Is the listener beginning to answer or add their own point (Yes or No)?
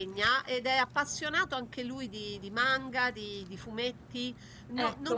No